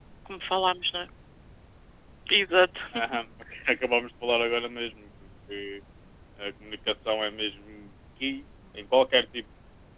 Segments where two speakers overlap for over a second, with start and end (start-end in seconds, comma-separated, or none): none